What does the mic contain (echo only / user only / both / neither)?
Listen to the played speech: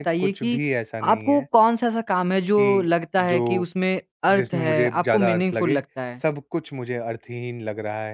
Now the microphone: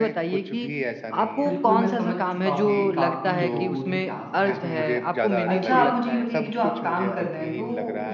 both